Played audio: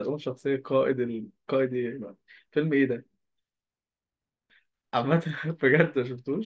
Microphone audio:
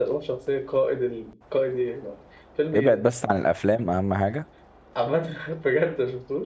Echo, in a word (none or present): present